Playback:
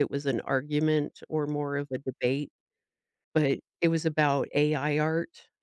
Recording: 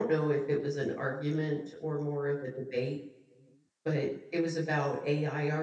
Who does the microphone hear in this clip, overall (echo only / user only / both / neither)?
echo only